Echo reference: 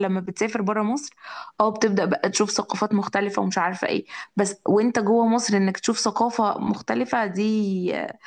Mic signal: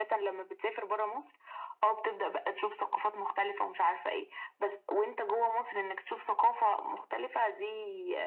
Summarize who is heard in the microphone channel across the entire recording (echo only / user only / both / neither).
echo only